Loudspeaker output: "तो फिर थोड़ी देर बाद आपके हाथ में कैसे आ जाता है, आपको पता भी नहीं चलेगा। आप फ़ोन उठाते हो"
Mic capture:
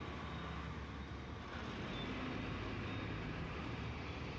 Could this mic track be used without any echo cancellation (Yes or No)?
Yes